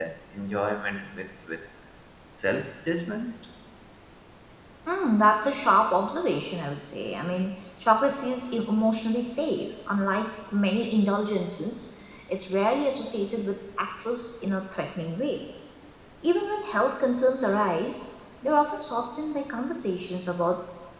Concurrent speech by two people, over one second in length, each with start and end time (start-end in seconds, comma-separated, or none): none